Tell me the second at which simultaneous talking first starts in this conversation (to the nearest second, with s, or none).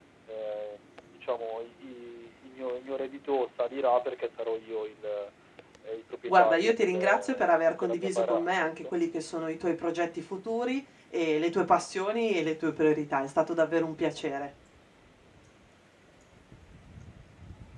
6 s